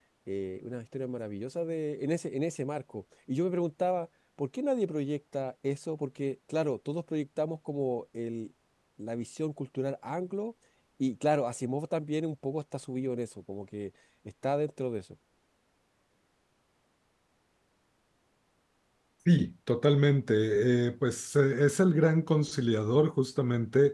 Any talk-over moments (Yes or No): No